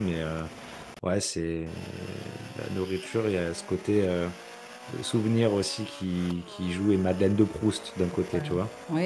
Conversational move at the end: taking over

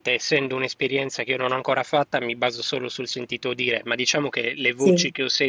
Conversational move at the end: listening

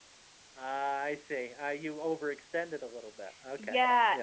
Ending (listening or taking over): taking over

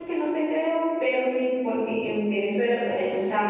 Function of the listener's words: listening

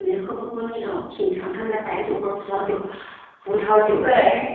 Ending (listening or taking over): listening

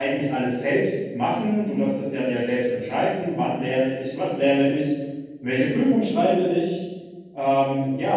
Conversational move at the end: listening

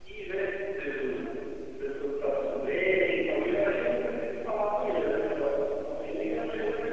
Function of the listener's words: taking over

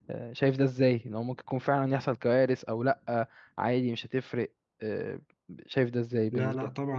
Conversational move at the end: taking over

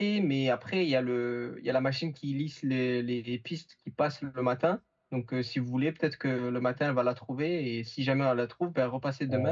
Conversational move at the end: taking over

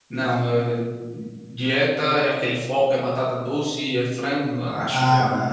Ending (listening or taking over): taking over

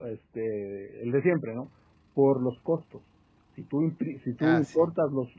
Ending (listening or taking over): listening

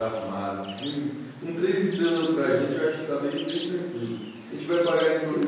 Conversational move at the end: listening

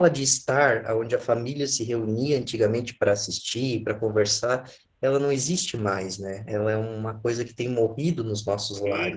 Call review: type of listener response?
taking over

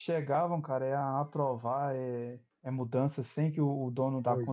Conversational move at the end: listening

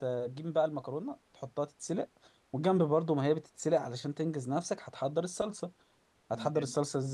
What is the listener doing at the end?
listening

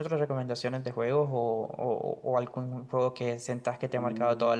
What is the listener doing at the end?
taking over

